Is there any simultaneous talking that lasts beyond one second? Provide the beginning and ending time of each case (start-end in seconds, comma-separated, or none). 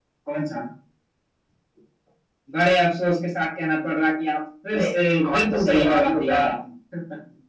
5.2-6.6